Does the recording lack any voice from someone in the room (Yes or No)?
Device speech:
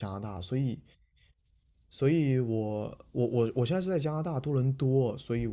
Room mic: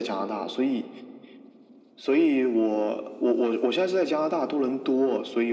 Yes